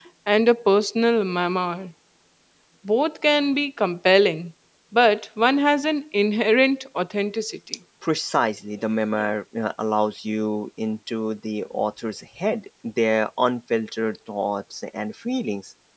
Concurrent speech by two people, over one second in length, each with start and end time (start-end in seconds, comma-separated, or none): none